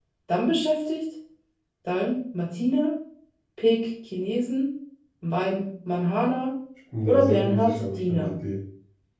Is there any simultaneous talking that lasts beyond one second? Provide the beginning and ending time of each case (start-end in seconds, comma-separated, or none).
7.0-8.3